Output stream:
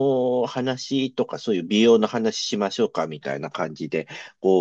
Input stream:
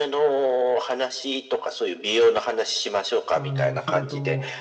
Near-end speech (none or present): present